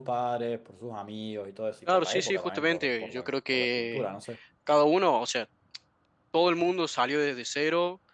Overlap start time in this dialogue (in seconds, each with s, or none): 1.9 s